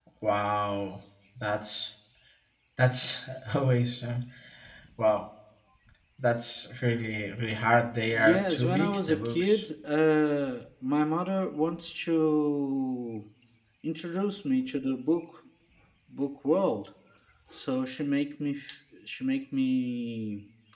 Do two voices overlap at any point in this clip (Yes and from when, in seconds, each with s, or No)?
Yes, from 8.1 s